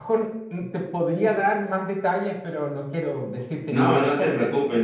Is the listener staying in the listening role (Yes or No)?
No